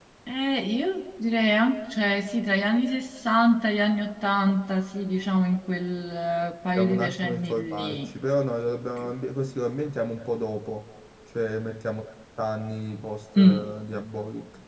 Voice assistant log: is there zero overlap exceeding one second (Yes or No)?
No